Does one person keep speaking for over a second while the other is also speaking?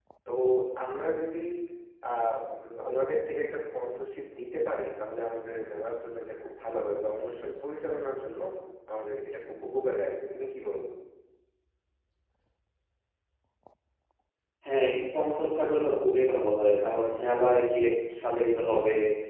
No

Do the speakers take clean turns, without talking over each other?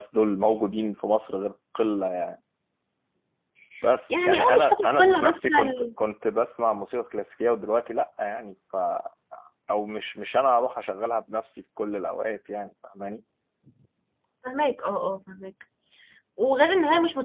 No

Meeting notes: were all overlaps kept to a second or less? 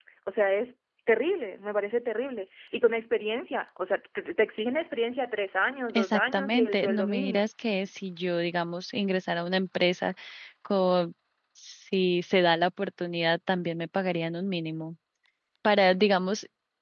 No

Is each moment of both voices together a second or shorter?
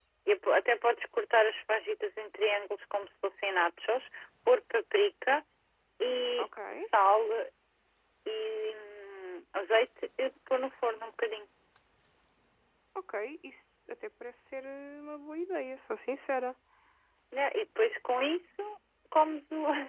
Yes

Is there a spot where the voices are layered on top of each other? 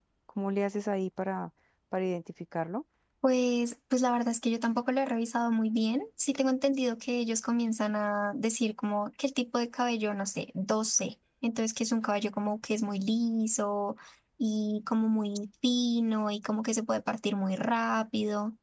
No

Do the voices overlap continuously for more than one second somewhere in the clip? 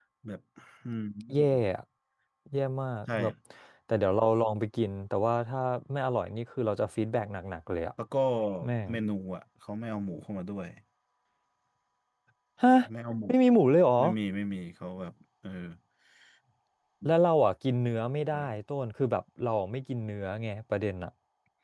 No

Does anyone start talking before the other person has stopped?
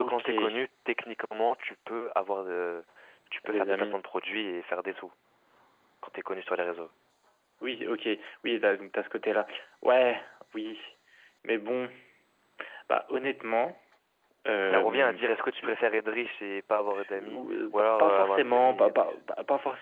Yes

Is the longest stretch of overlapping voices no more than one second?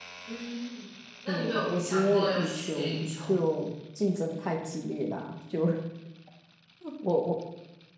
No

